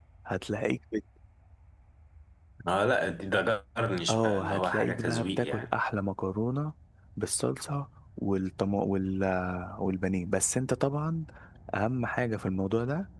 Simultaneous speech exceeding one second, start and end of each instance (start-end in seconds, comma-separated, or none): 4.1-5.7